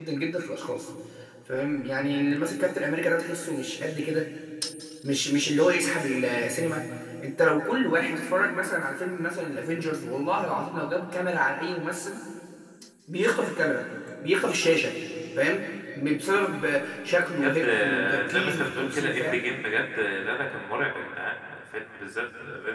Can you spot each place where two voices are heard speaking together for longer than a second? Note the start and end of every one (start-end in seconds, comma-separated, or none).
17.2-19.4